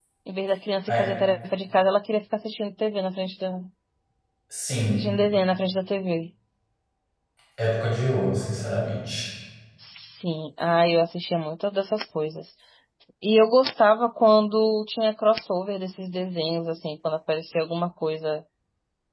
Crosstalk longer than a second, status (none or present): none